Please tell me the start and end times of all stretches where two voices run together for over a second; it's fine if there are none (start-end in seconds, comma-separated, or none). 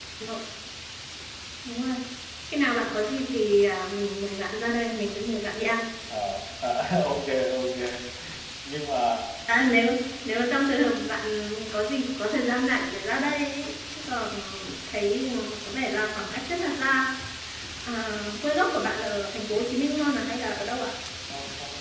none